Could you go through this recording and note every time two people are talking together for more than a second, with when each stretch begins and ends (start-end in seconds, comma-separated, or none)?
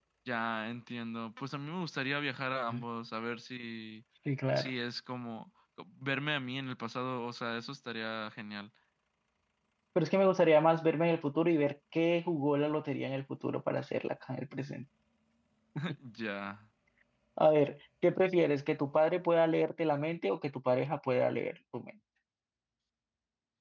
none